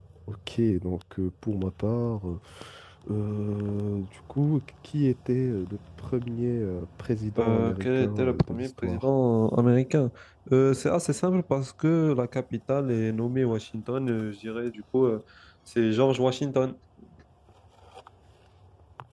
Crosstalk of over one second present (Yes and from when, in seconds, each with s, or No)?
Yes, from 7.4 s